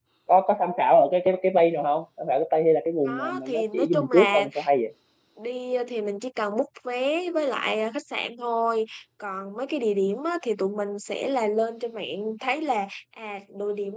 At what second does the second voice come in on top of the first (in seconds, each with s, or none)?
3.0 s